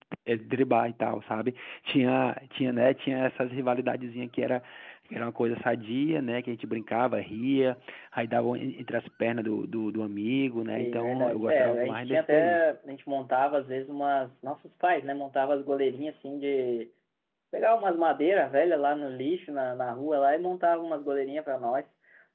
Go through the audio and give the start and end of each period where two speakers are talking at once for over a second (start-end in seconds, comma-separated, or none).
10.6-12.6